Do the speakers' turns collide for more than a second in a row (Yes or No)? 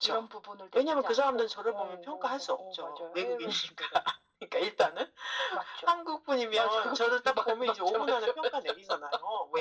Yes